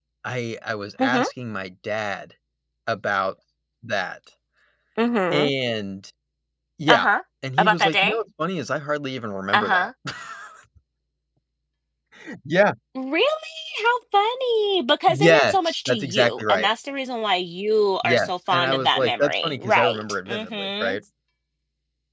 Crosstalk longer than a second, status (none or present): present